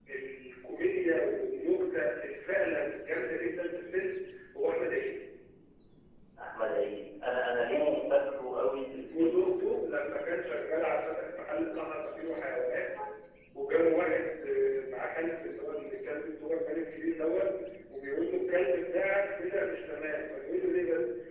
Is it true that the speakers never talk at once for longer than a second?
Yes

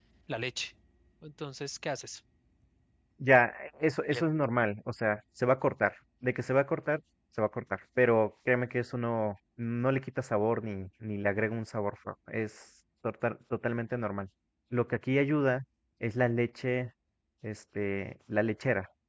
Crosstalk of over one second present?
No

